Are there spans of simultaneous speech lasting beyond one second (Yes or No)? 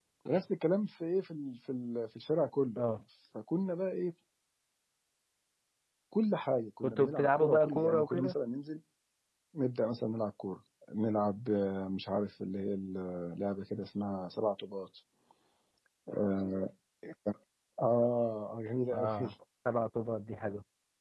Yes